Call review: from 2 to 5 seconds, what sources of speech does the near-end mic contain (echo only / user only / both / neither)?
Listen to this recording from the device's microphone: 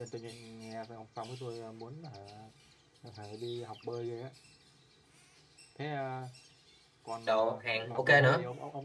echo only